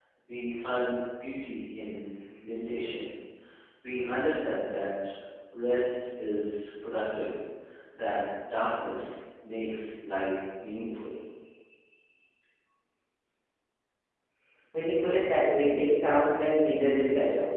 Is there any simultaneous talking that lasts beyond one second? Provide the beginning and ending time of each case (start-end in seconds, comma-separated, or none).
none